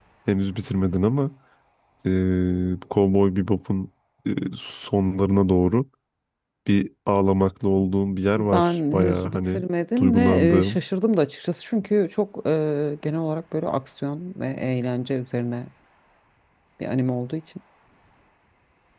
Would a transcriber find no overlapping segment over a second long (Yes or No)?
No